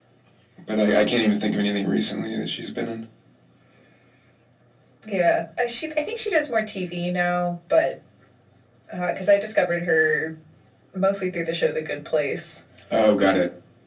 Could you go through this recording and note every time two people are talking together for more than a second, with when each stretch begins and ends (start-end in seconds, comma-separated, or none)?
none